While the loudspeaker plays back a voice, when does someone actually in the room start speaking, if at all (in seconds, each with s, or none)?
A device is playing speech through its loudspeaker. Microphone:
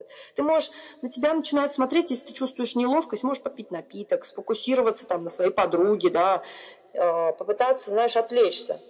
none